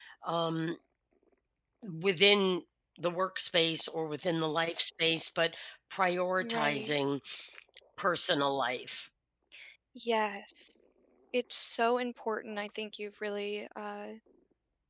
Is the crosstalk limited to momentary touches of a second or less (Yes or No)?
Yes